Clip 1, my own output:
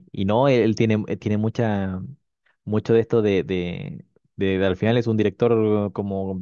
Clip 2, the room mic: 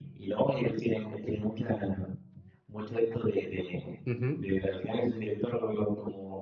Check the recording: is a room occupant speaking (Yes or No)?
Yes